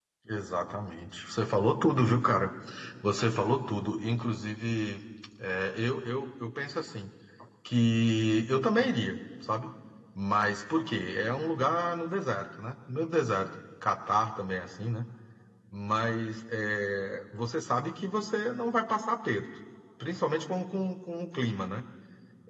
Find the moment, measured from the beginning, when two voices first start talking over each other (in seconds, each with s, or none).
none